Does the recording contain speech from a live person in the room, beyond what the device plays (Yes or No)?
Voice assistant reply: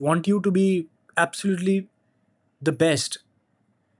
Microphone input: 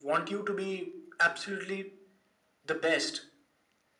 No